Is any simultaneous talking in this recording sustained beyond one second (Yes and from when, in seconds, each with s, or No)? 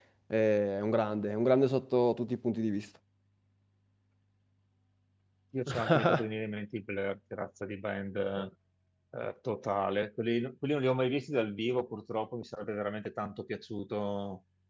No